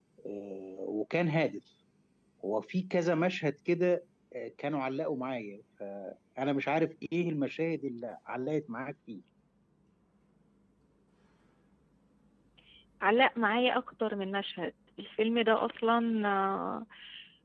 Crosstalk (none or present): none